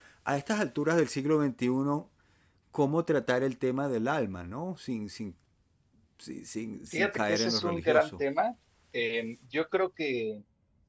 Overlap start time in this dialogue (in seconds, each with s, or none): 6.9 s